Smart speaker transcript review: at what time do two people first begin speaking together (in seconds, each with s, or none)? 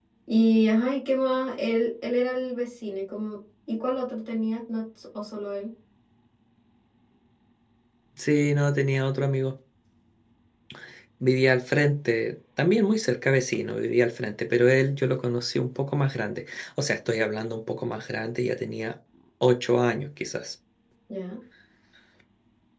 none